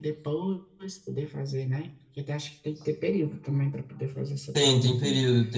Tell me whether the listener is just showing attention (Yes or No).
No